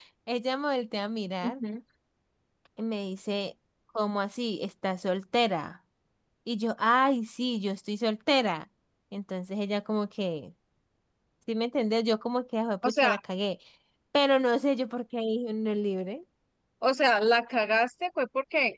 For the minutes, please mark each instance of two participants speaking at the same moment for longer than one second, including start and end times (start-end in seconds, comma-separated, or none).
none